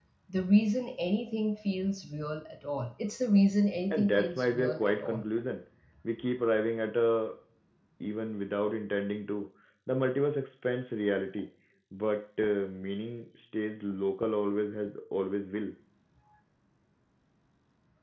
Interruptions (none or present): present